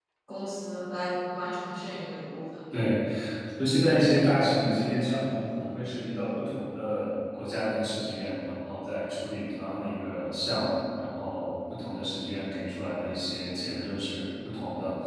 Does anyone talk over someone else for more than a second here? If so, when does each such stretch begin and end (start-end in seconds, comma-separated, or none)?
none